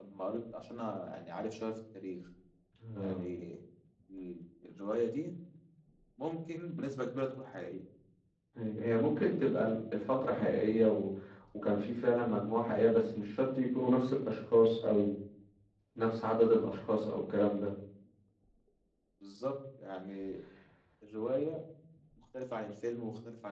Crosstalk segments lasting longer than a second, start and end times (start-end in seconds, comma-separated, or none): none